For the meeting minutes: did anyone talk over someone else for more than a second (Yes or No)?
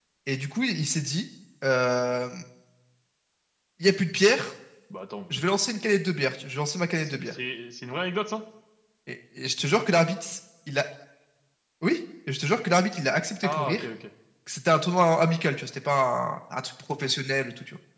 No